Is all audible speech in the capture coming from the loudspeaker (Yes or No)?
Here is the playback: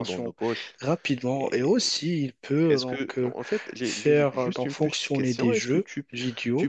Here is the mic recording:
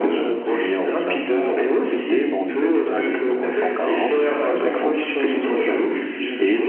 No